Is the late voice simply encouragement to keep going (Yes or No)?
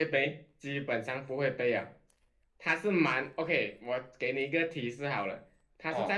Yes